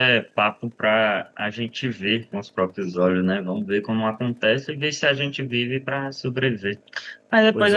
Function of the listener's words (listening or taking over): listening